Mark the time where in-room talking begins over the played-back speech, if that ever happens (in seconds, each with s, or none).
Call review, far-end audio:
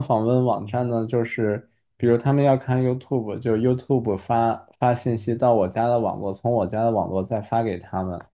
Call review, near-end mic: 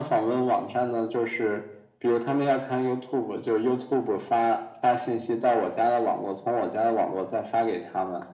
none